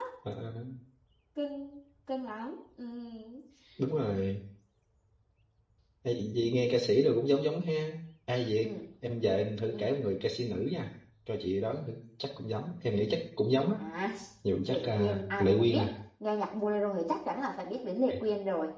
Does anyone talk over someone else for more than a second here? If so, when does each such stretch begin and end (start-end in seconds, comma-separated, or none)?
14.7-15.9